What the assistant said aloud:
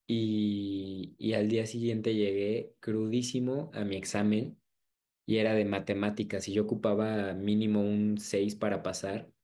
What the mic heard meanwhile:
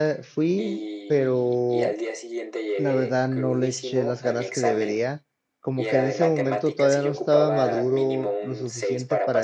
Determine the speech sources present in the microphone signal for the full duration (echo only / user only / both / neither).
both